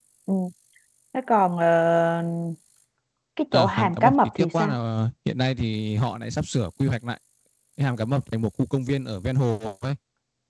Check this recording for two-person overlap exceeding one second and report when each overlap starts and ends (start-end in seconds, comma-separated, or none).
3.5-4.8